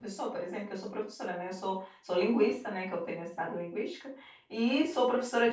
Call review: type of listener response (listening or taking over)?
listening